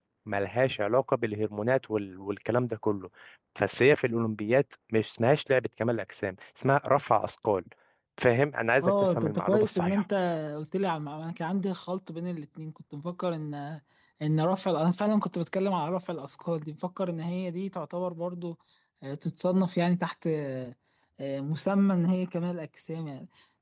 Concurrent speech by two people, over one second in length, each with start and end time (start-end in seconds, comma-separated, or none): 8.8-10.0